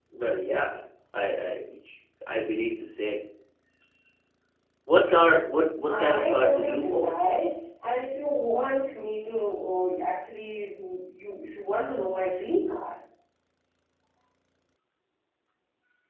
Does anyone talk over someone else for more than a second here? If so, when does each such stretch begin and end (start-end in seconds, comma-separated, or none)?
5.9-7.2